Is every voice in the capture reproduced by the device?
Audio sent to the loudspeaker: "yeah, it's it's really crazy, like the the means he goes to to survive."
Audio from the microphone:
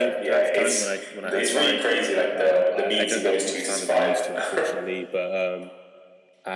No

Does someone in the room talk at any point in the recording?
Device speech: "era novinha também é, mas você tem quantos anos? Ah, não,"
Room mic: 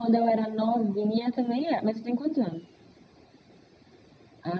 No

